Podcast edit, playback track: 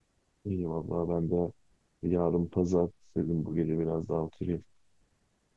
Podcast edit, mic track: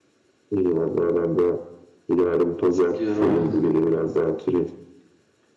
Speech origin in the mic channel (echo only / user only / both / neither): both